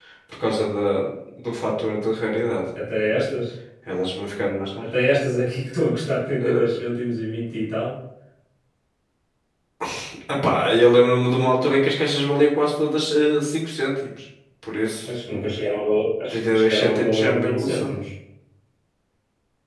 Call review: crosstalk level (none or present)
present